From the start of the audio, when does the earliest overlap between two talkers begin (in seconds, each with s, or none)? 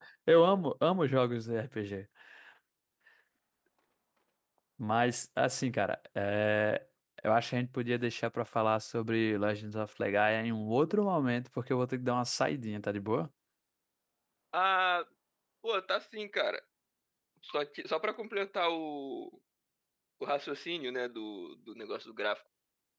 none